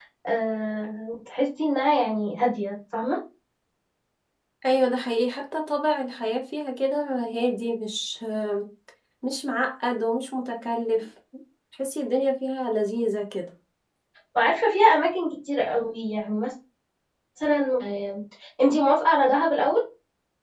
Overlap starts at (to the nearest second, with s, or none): none